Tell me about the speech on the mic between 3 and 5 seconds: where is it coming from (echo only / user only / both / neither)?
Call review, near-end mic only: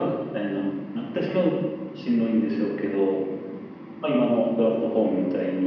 echo only